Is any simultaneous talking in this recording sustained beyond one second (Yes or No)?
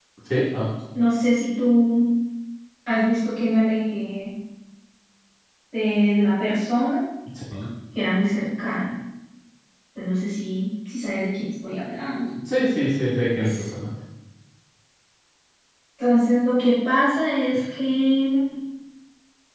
No